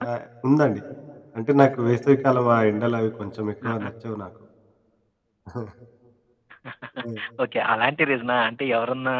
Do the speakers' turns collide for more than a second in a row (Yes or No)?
No